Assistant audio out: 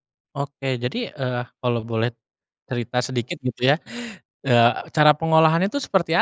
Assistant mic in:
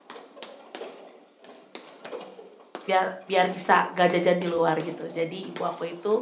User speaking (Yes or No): Yes